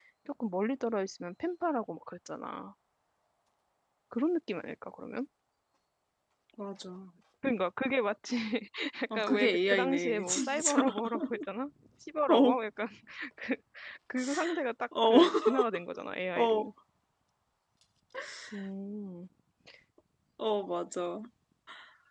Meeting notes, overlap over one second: present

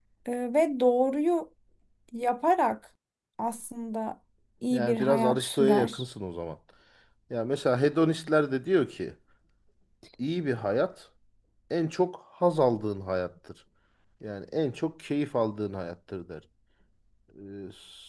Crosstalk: present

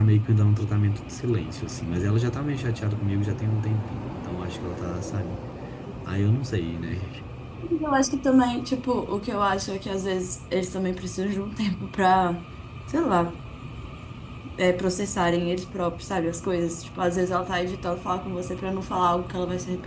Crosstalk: none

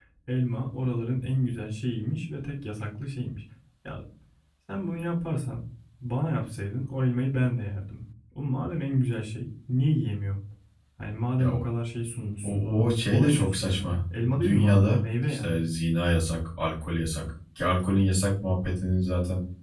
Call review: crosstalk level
present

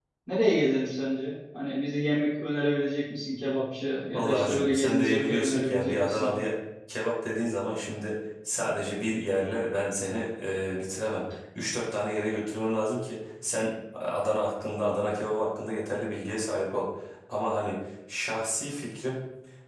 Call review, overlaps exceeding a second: present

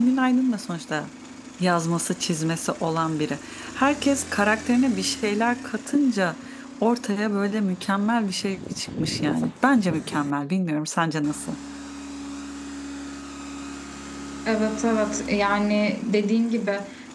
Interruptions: none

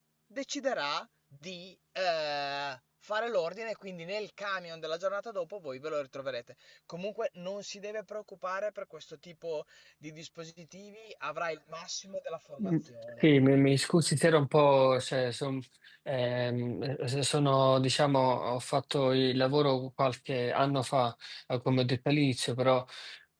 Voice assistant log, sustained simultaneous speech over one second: none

